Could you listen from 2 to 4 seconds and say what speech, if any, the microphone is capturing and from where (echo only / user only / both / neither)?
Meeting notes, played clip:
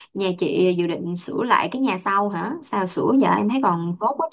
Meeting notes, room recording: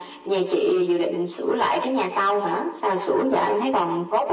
echo only